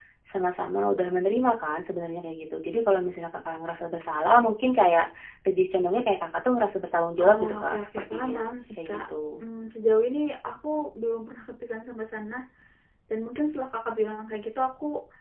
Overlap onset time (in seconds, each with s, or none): 7.2 s